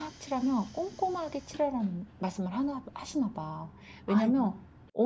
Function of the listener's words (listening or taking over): listening